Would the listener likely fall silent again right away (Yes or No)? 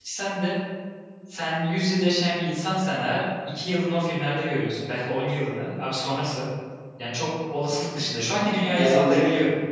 No